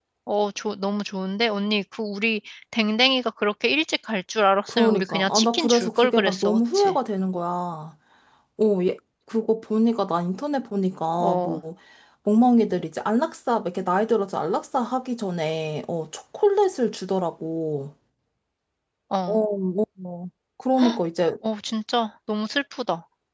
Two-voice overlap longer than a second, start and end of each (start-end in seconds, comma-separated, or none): 4.7-7.0